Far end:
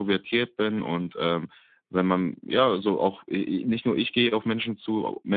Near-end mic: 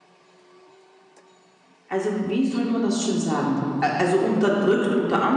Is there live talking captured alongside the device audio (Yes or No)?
Yes